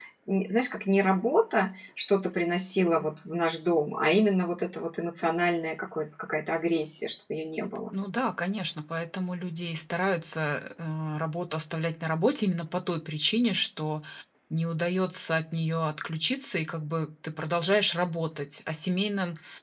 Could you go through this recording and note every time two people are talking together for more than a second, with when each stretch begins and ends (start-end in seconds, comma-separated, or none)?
none